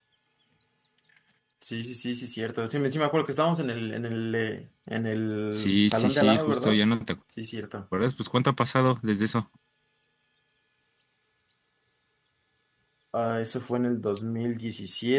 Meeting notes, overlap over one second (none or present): present